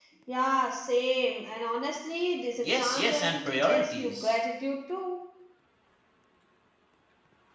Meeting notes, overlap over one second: present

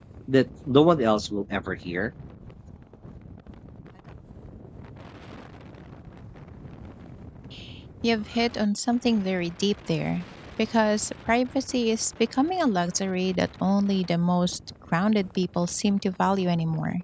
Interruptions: none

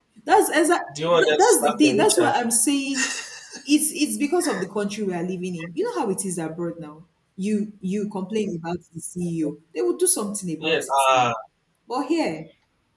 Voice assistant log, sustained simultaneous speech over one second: present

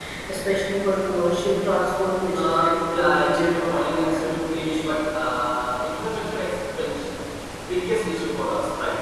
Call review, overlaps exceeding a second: present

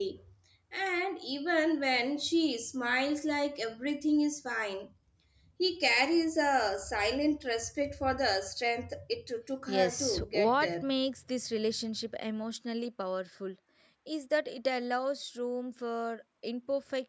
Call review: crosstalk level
present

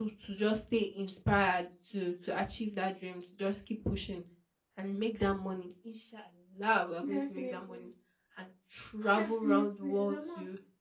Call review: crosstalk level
present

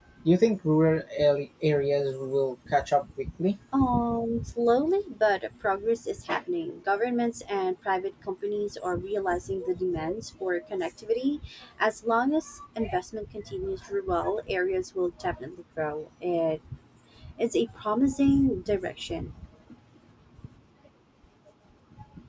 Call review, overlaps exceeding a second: none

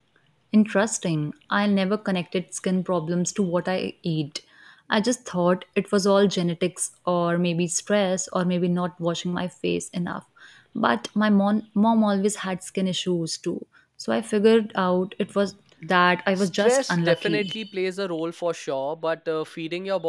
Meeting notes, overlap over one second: present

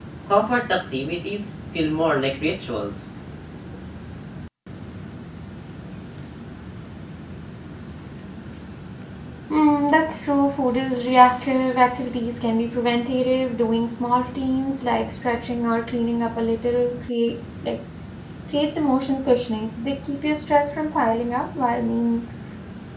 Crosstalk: none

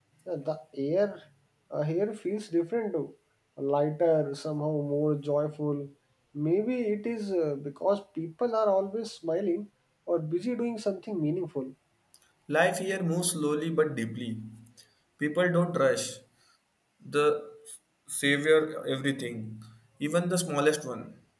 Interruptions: none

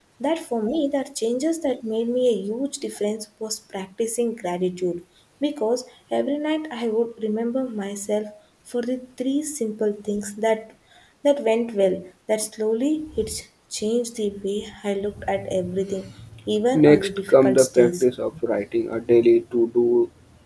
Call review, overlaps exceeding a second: present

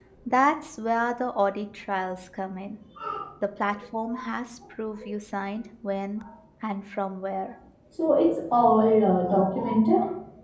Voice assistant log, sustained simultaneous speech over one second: none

